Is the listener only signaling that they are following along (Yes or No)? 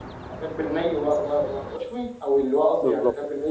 No